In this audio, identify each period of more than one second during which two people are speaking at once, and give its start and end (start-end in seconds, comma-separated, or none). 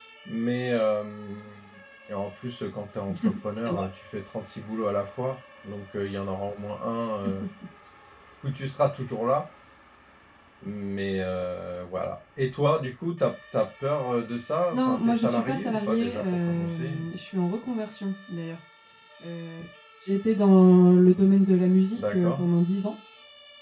14.7-17.0